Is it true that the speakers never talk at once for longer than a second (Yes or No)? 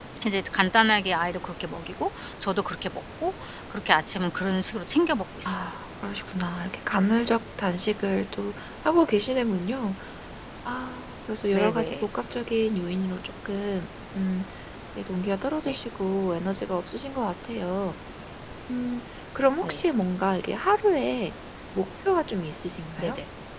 Yes